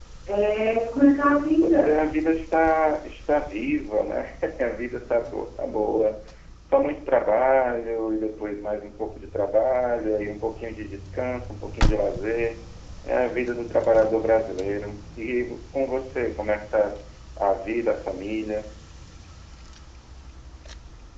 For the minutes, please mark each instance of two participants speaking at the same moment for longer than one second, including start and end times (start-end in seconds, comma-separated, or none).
none